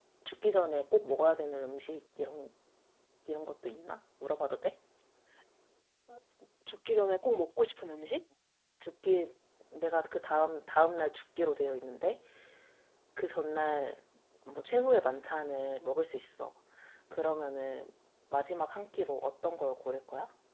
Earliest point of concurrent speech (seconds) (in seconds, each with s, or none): none